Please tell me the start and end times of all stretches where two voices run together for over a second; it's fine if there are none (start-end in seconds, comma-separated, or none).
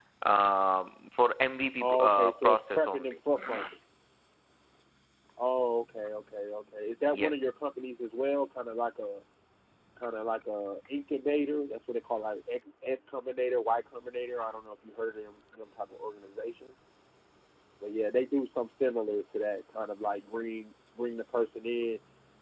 1.8-3.1